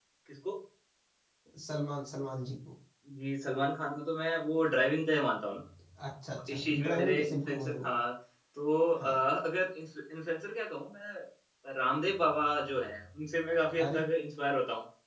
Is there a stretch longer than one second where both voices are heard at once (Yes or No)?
Yes